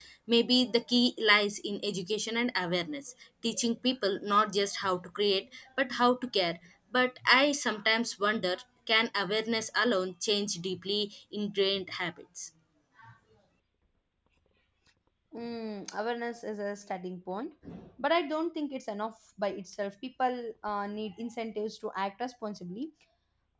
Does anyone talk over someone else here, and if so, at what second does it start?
none

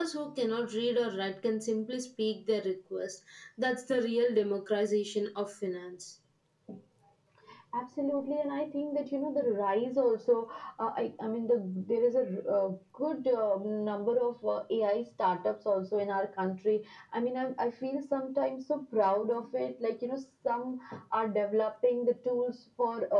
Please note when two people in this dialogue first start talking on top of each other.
none

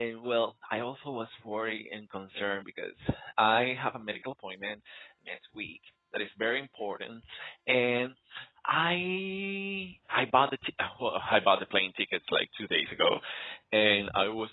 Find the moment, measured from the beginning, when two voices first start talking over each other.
none

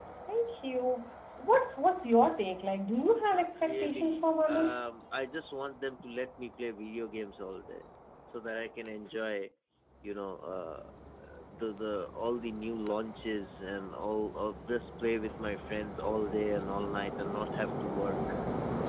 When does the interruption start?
3.3 s

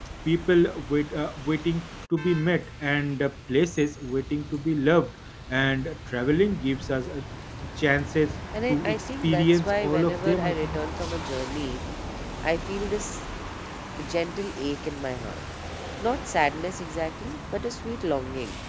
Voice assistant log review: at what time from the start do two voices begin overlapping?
8.5 s

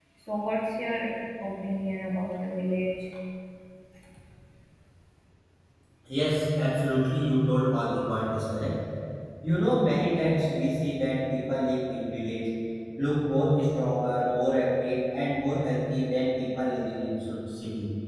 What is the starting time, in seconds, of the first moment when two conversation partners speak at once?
none

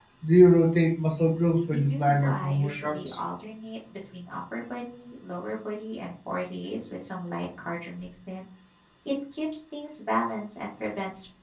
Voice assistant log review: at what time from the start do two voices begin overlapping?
1.9 s

